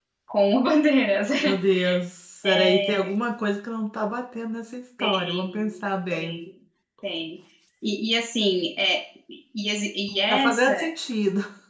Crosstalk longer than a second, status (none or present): present